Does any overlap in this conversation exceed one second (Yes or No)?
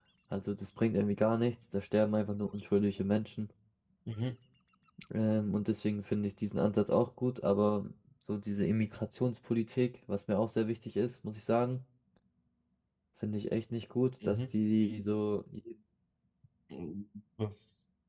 No